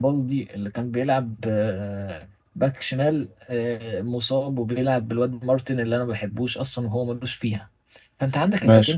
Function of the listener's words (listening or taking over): listening